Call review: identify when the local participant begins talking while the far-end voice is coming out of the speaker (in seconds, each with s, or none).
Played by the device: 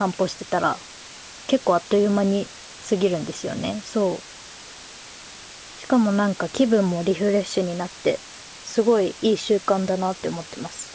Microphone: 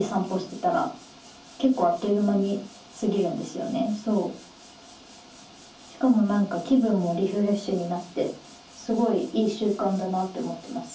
none